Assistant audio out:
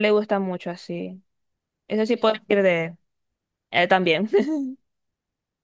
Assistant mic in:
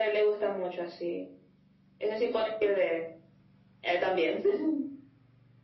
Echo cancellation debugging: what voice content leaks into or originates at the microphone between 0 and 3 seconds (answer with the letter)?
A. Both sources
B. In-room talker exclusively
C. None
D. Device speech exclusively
D